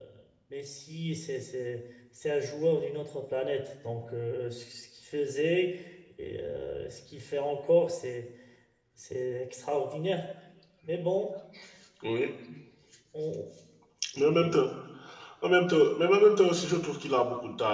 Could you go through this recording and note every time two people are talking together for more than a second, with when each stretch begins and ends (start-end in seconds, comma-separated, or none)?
none